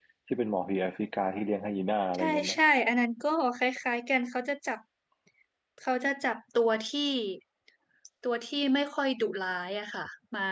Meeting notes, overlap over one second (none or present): none